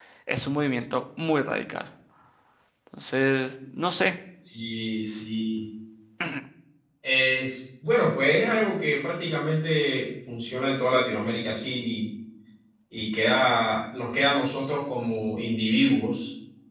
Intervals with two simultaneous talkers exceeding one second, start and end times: none

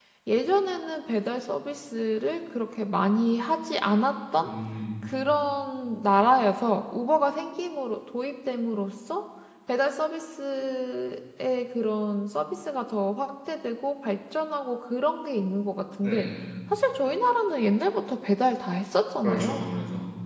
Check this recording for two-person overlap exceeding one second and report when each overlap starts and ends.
none

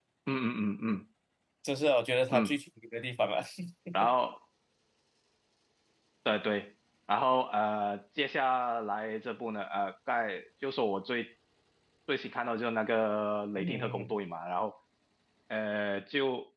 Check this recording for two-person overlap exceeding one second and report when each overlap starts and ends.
none

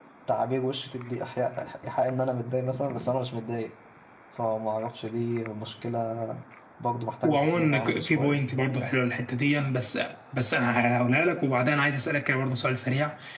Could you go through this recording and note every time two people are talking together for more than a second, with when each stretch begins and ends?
7.2-8.4

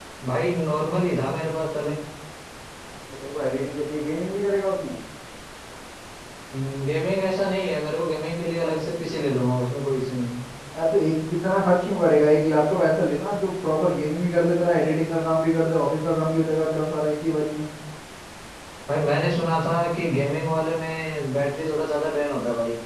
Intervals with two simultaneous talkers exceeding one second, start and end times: none

